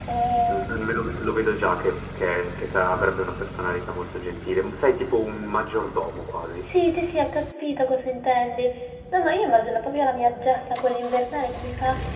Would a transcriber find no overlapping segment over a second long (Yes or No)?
Yes